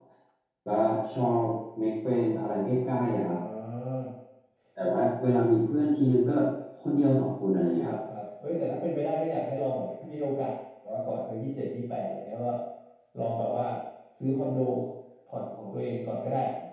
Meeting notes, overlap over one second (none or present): none